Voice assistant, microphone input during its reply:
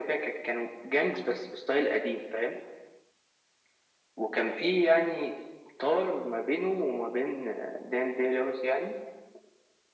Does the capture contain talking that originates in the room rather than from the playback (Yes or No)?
No